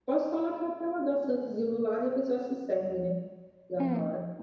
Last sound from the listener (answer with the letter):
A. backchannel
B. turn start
B